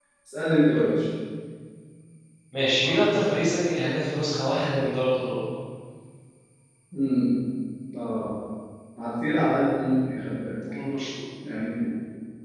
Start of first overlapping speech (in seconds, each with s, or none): none